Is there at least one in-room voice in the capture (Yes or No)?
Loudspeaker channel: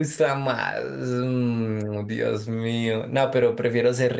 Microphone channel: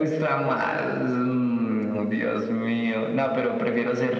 No